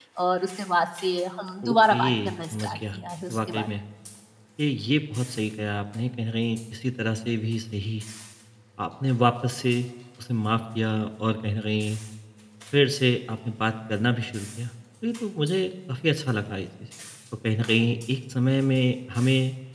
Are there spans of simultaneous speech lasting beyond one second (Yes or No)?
Yes